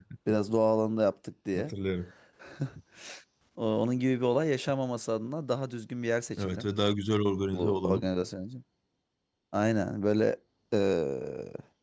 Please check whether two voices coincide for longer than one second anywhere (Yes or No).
No